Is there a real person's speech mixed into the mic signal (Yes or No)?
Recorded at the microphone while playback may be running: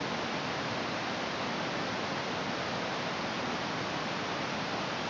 No